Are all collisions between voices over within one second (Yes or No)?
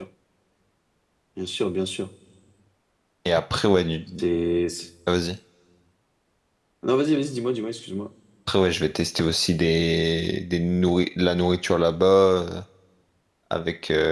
Yes